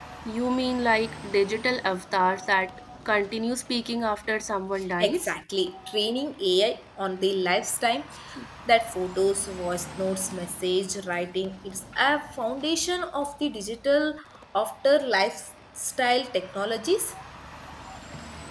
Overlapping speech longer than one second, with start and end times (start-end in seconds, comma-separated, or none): none